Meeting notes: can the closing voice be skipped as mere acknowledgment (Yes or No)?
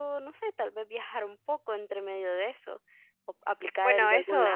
No